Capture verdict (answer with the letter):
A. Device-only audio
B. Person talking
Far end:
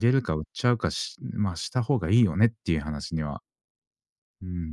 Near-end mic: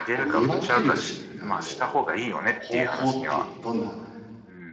B